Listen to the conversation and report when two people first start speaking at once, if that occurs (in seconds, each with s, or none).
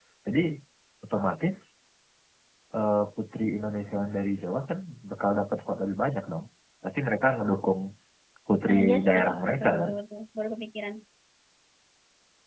8.7 s